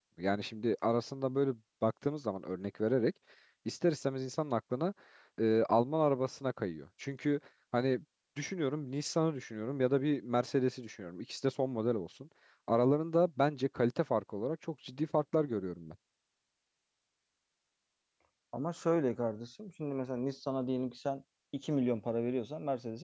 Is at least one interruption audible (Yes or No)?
No